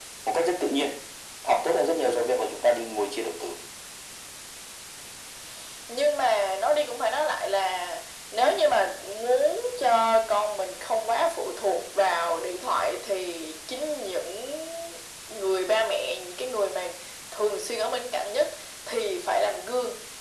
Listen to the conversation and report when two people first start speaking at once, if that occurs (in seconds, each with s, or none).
none